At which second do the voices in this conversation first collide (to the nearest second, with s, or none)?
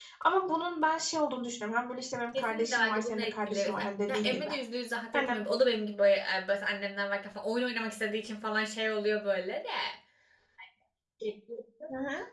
2 s